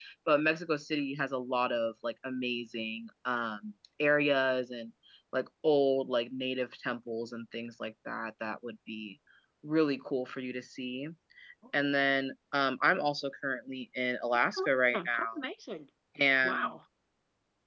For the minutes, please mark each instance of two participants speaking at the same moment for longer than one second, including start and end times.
none

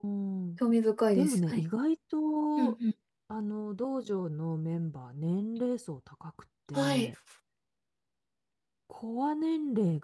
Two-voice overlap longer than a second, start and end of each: none

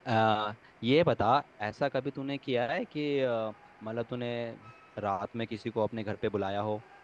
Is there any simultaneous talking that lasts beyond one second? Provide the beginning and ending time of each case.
none

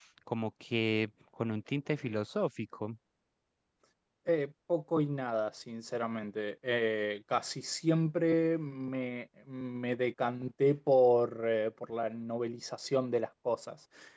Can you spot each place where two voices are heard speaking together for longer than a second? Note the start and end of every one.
none

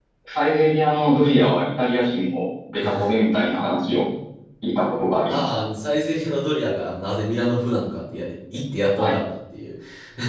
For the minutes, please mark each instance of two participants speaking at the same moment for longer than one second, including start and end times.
none

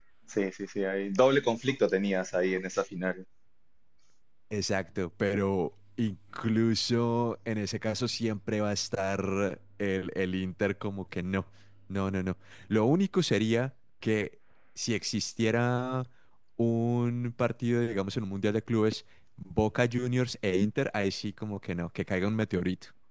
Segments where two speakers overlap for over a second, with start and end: none

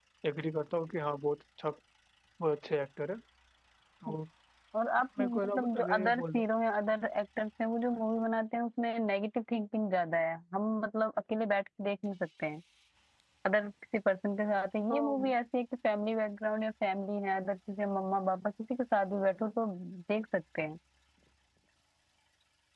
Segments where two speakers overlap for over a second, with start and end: 5.2-6.5

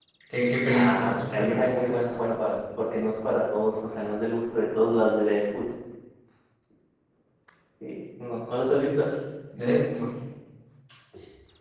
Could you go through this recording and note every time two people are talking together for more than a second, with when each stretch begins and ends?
0.7-2.0

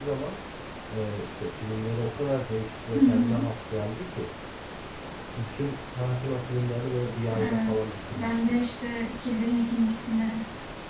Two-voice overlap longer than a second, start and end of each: 7.3-8.6

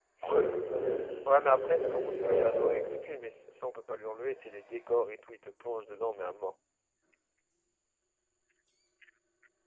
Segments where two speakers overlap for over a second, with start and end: 1.2-2.8

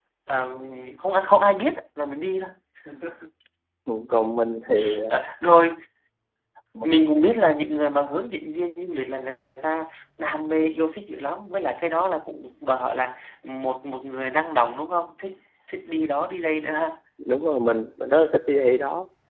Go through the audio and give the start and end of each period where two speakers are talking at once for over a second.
none

